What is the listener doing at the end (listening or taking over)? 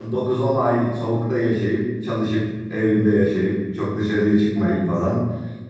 listening